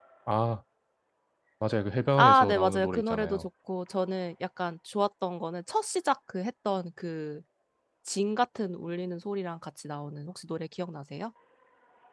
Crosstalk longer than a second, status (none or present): present